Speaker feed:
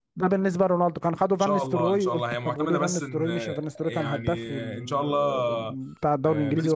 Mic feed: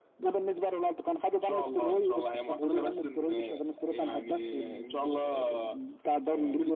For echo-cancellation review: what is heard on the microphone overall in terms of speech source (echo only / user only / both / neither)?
echo only